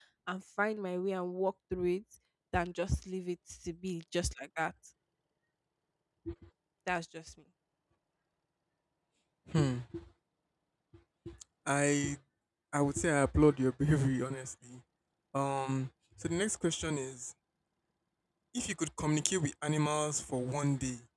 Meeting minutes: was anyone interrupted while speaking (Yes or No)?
No